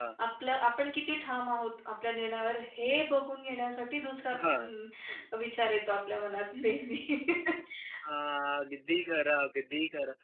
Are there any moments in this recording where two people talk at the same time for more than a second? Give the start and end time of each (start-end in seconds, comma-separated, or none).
none